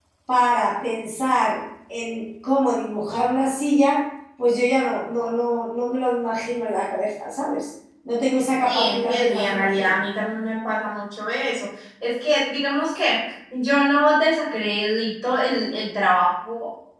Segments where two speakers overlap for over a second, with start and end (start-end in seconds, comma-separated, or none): 8.6-10.0